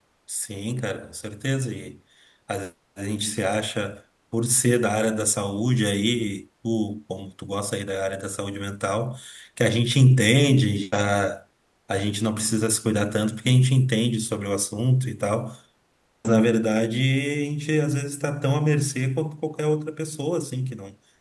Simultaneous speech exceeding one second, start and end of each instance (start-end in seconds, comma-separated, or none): none